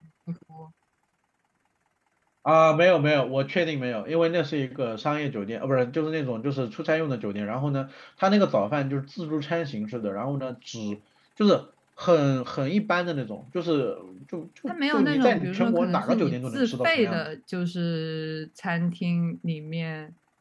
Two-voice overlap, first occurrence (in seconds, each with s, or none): 14.7 s